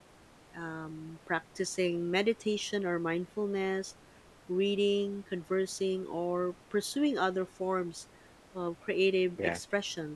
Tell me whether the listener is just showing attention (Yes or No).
Yes